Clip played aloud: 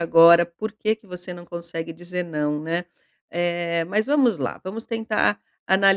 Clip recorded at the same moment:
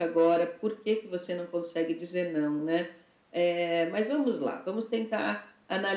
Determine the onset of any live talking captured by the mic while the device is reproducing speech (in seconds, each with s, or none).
none